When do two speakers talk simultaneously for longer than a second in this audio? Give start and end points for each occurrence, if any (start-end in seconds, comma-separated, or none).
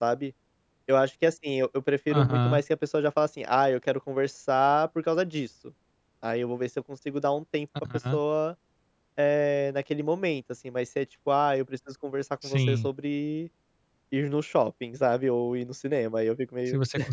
none